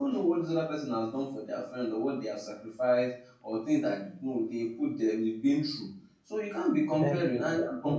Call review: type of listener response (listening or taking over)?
taking over